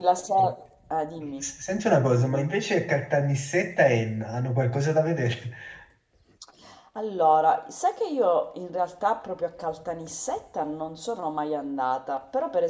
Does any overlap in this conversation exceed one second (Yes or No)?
No